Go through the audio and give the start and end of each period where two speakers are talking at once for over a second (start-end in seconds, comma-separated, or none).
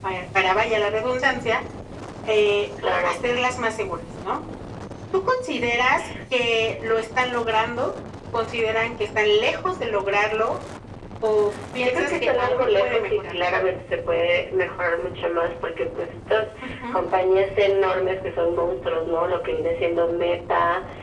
11.8-13.4